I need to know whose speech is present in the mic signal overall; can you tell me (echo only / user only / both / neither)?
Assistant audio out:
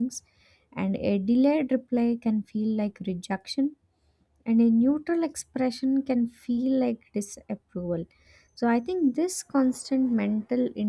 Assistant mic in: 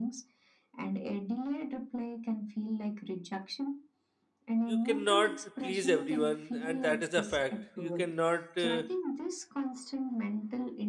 both